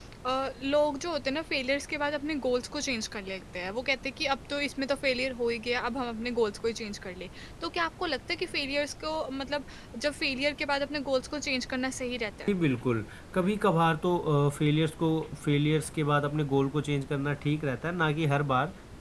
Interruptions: none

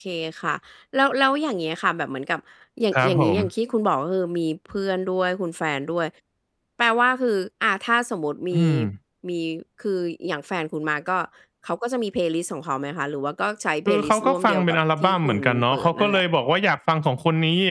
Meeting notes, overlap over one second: present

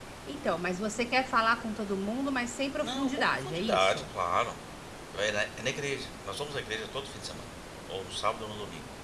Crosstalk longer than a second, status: present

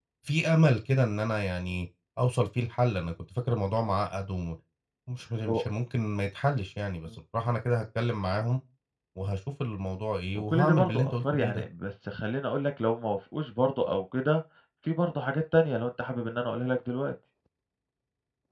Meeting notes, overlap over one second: present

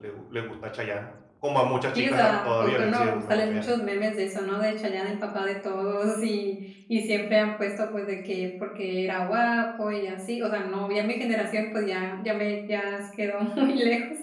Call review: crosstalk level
present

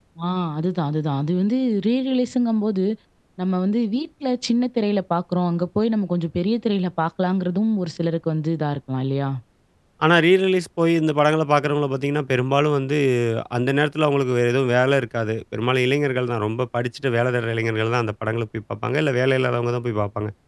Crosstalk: none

